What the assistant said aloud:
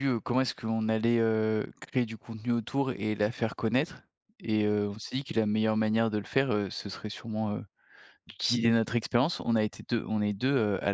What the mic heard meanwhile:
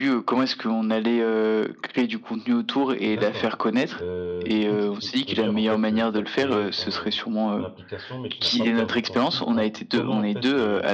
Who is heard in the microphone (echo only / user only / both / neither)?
both